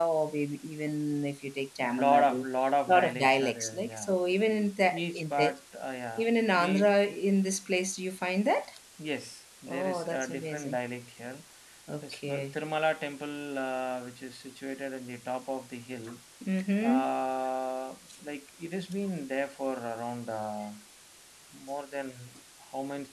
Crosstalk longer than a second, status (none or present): present